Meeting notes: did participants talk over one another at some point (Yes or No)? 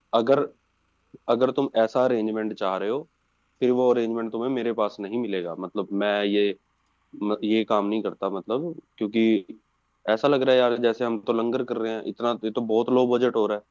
No